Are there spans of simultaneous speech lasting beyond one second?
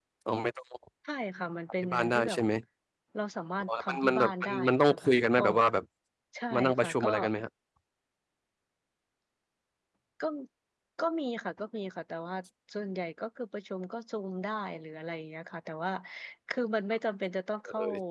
Yes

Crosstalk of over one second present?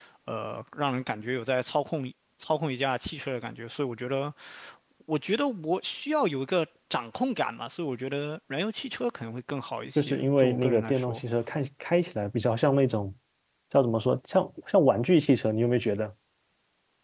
Yes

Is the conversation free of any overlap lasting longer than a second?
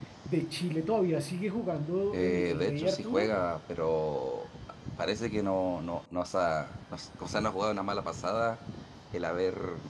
No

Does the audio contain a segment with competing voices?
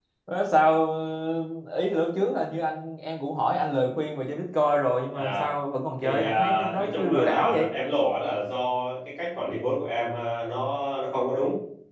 Yes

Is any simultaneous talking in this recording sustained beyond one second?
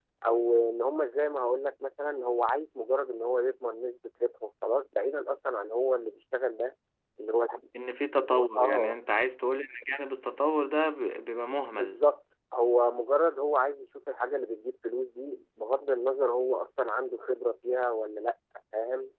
No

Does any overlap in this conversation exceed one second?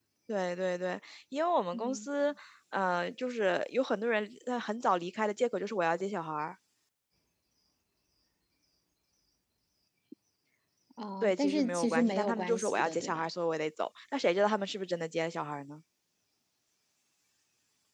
Yes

